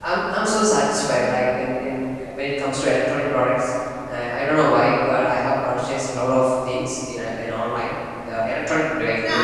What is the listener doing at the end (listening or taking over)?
taking over